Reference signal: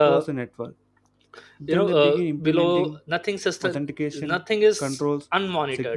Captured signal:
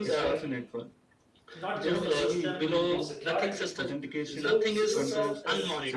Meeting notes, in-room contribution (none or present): present